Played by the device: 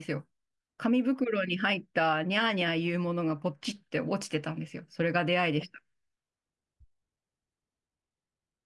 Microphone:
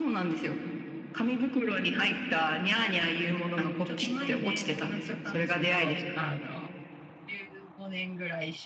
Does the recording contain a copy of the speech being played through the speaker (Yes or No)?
Yes